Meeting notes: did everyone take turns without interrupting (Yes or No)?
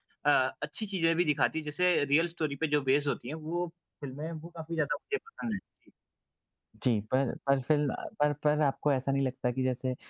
Yes